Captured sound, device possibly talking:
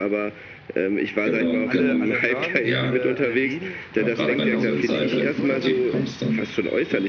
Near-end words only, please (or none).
alle, alle hören's, alle, alle reden darüber. Ich hatte auch die passende Frisur dann natürlich,